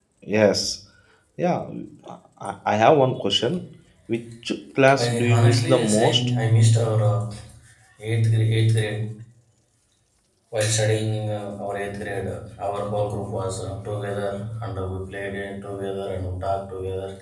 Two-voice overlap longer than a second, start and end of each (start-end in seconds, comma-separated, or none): 4.9-6.2